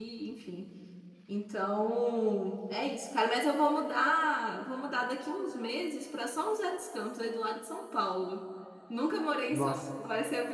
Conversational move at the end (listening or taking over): listening